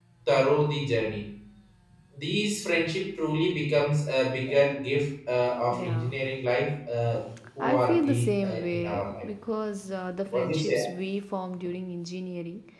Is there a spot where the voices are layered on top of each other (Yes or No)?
Yes